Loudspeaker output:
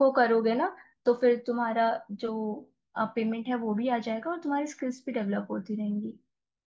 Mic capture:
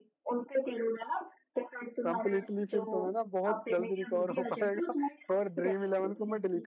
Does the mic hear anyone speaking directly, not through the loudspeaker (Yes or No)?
Yes